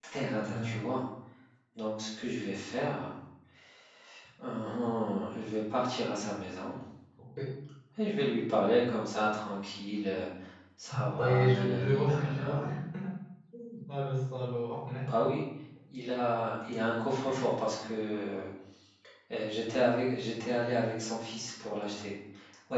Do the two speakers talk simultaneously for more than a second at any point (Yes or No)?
Yes